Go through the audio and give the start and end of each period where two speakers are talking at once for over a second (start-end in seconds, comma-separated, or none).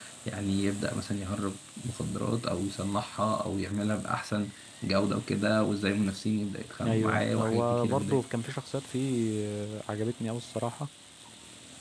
6.9-8.2